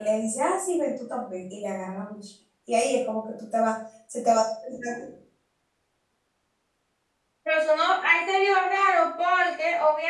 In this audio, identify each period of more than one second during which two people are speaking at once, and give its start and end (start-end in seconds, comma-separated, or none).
none